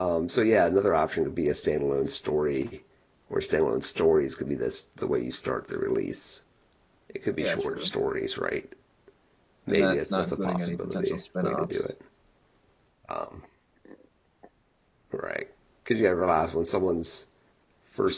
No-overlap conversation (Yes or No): No